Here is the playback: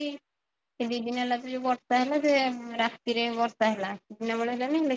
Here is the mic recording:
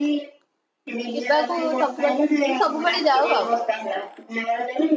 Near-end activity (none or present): present